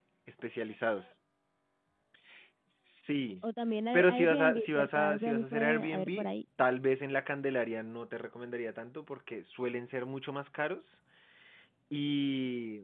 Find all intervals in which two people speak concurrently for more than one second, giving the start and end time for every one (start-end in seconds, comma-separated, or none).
3.9-6.3